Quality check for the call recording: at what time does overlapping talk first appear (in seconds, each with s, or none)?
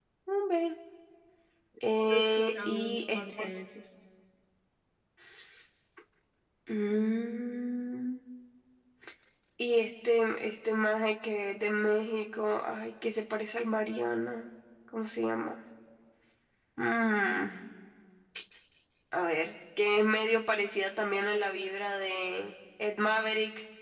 2.1 s